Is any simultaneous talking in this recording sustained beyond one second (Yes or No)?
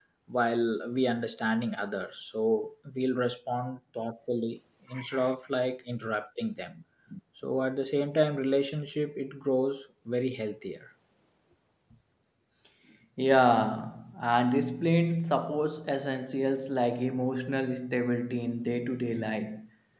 No